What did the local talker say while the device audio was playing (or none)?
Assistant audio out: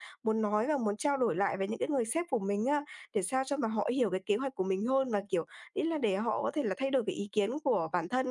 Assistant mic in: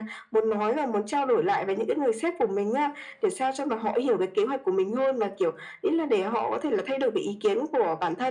none